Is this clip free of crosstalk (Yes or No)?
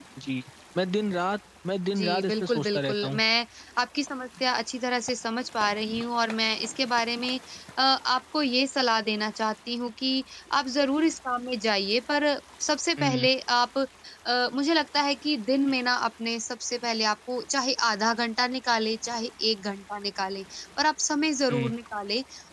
No